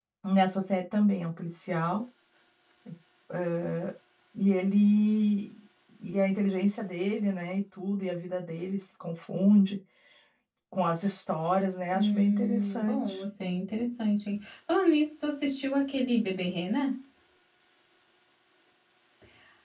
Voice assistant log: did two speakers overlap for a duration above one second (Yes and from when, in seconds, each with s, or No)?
Yes, from 11.9 s